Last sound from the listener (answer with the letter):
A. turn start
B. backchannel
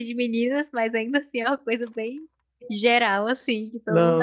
A